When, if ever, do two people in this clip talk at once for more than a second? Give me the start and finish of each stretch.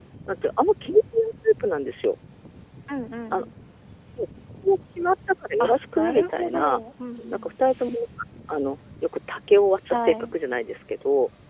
5.6-6.8

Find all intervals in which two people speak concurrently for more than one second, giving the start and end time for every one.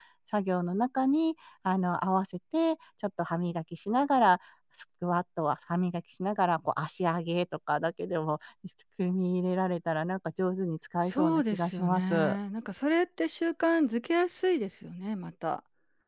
11.1-12.3

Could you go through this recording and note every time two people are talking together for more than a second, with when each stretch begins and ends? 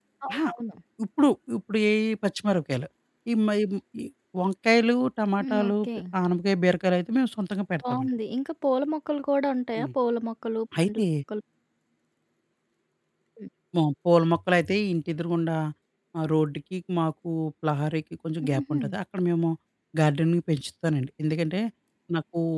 none

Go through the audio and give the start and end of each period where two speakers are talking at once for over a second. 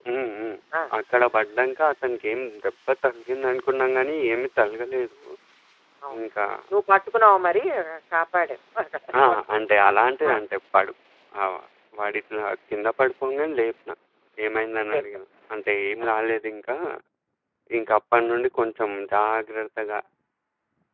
none

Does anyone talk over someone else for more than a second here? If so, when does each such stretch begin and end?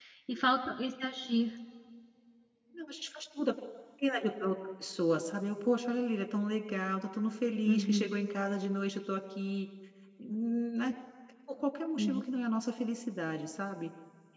none

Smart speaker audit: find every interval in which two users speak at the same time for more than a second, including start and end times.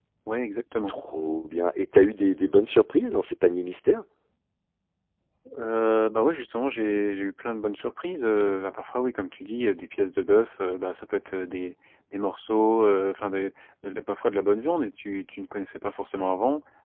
none

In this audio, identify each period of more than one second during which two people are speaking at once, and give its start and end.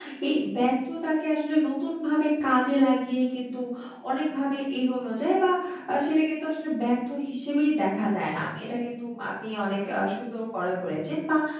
none

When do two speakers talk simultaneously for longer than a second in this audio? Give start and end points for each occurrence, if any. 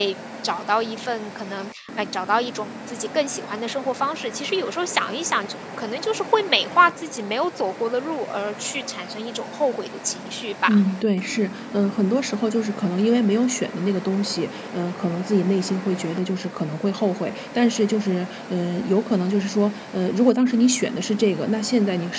none

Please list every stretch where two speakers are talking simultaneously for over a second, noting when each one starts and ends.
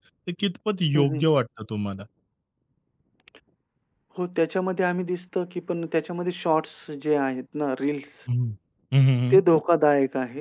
none

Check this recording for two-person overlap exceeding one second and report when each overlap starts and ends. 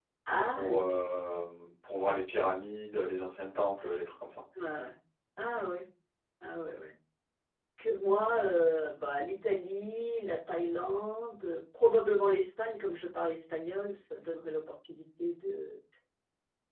none

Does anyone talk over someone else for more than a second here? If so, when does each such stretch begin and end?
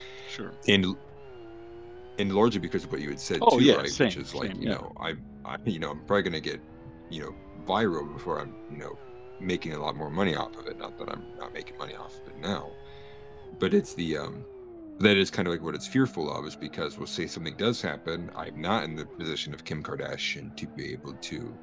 3.4-4.8

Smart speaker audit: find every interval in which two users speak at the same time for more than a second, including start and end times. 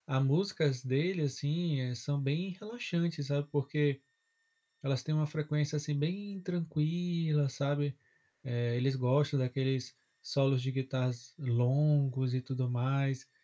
none

